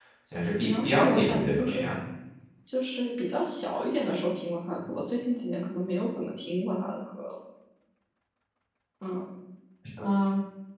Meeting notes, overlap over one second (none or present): present